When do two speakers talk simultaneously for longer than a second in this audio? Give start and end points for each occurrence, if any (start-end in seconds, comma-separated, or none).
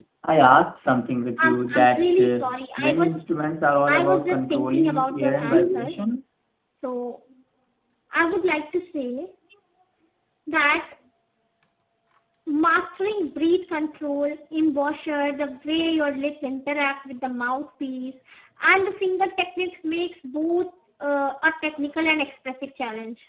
1.4-3.2, 3.9-5.9